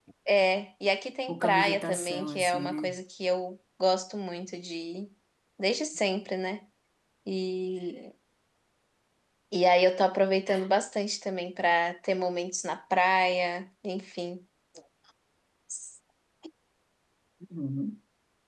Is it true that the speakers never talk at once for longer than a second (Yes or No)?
No